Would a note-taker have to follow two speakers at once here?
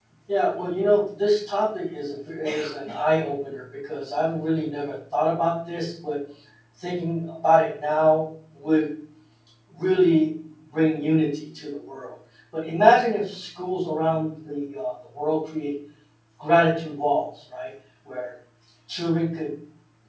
No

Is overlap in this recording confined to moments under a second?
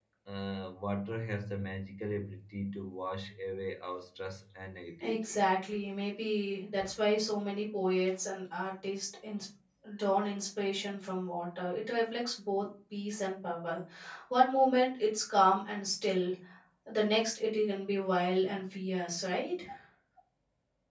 Yes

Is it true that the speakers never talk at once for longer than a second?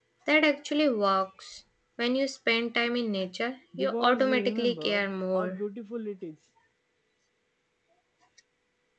No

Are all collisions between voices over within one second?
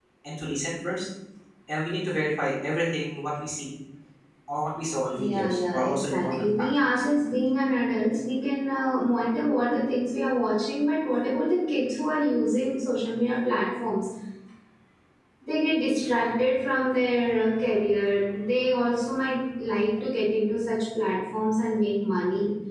No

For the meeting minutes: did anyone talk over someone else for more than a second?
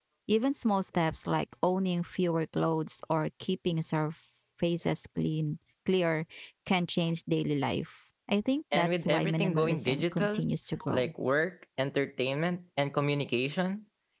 Yes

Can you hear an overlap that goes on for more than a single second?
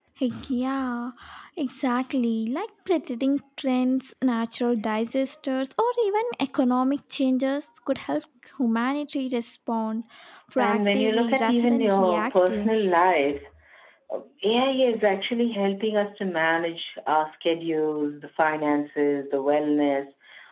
Yes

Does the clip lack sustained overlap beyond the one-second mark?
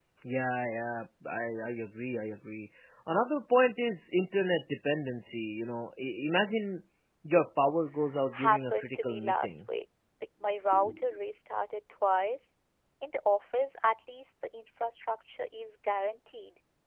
No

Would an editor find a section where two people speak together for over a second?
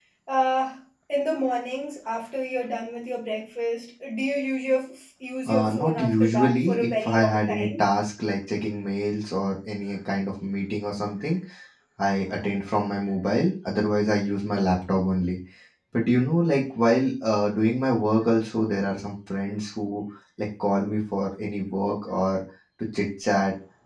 Yes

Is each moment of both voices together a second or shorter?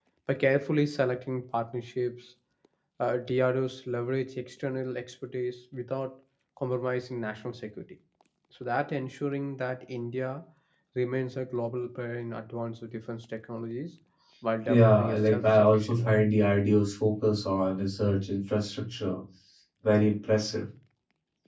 No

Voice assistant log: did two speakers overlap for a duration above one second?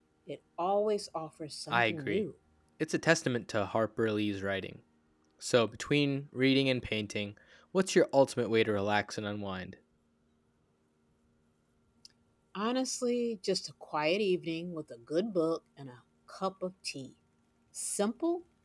No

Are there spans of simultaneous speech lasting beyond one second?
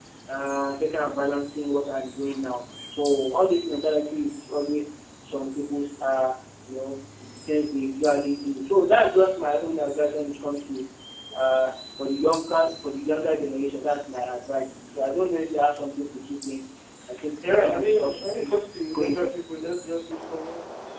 Yes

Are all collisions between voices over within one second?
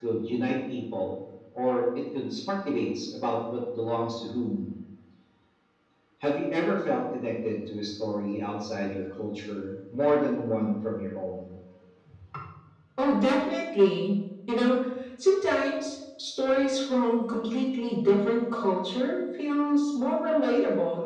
Yes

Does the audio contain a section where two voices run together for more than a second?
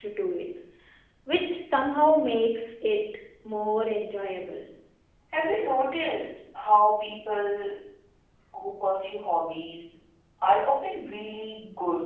No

